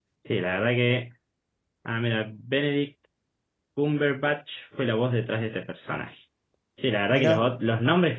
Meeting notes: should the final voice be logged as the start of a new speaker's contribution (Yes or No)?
No